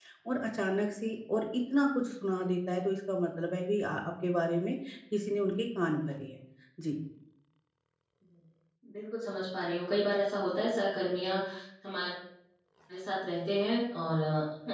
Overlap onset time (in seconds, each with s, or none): none